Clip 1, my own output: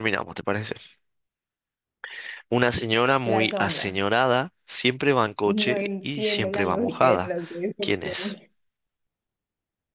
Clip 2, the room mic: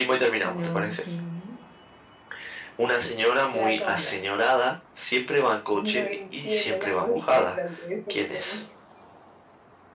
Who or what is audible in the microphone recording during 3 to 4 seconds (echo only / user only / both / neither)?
echo only